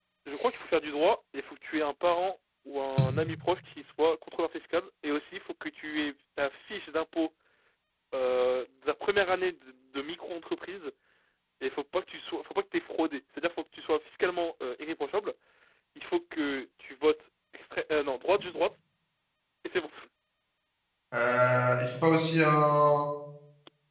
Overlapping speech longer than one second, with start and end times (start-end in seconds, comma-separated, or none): none